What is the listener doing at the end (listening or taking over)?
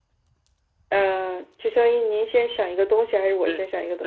taking over